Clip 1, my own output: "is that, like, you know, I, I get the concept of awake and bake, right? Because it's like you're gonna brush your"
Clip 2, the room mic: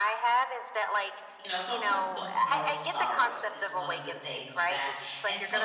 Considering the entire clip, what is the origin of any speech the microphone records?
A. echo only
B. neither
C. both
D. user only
C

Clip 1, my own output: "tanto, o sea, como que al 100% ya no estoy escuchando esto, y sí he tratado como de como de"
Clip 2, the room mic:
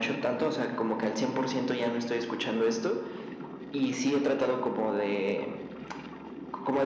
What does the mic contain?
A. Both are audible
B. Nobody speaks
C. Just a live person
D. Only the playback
D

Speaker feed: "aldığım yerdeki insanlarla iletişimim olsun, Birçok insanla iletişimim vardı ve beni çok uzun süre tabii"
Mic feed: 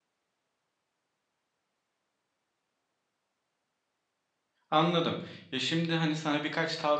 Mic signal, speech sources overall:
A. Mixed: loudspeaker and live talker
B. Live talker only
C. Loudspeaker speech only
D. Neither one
B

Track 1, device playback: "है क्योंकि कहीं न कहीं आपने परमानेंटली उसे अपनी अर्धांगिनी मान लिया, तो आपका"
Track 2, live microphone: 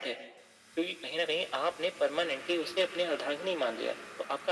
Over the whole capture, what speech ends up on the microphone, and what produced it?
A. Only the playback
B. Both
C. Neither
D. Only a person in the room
A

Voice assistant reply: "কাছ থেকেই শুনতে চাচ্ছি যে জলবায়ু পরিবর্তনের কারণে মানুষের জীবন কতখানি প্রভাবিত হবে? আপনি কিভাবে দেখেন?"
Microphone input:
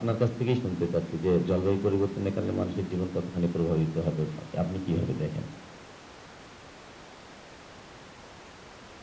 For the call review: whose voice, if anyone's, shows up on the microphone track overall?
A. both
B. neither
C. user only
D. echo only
D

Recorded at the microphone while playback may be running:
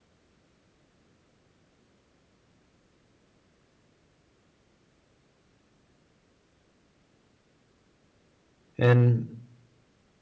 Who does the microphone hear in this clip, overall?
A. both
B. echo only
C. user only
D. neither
C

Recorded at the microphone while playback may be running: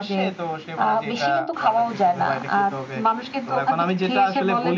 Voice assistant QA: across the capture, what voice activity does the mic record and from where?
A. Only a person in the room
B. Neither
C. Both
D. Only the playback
D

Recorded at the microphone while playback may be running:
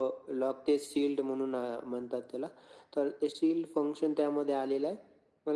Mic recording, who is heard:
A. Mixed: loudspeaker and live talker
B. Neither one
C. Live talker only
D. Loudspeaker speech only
D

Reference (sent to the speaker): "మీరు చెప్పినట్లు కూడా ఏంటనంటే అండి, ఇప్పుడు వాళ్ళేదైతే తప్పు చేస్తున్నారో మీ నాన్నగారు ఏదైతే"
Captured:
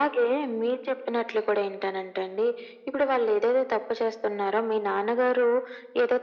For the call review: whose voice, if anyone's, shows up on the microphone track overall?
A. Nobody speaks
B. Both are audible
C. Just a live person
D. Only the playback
D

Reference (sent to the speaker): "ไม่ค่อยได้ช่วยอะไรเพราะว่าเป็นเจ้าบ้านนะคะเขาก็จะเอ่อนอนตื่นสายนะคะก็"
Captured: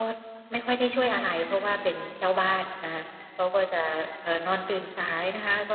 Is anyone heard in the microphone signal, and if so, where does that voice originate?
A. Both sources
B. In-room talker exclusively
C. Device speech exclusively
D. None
C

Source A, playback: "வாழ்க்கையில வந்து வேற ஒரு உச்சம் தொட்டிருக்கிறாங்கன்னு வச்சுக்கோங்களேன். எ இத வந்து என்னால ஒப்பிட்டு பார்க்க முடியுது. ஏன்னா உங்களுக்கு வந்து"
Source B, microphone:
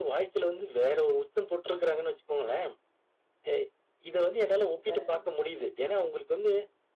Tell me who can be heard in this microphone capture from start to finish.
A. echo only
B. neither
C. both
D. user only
C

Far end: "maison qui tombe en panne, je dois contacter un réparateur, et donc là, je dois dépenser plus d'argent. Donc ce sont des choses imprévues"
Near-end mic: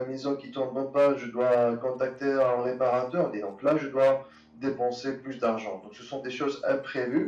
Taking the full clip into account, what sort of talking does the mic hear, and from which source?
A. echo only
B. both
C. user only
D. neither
A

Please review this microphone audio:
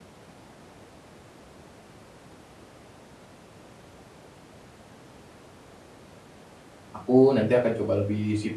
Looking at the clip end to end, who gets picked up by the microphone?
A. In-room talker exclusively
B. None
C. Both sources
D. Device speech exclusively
A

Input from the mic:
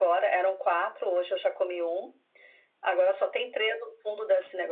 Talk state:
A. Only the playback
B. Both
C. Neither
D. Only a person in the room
A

